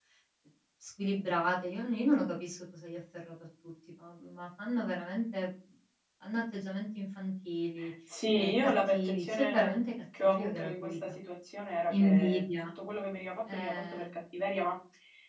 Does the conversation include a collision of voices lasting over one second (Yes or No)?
Yes